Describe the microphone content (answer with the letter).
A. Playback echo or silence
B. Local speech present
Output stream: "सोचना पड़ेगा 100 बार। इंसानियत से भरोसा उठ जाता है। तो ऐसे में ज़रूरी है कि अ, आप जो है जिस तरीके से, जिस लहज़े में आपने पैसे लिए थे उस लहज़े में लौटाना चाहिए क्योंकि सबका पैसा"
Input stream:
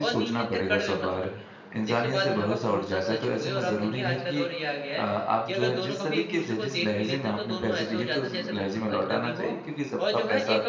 B